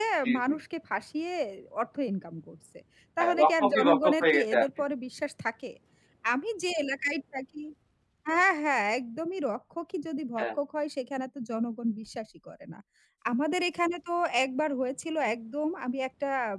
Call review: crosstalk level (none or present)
present